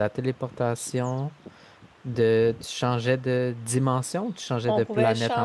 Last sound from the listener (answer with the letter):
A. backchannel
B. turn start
B